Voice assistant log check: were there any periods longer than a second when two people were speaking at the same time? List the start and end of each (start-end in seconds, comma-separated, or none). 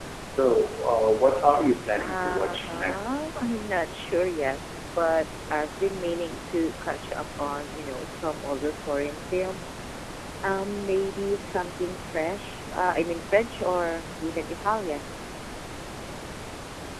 2.0-3.3